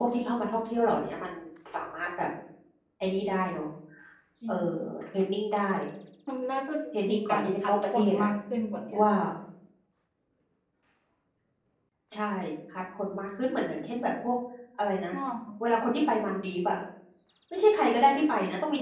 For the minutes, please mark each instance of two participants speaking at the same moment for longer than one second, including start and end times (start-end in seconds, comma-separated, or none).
7.1-8.3